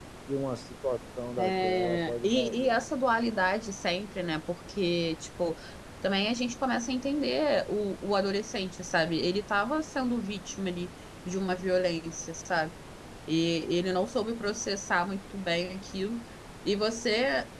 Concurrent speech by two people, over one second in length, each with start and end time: 1.4-2.9

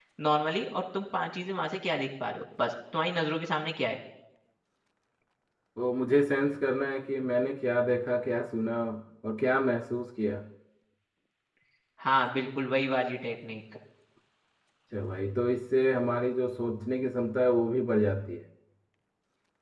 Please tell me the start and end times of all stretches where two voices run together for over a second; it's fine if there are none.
none

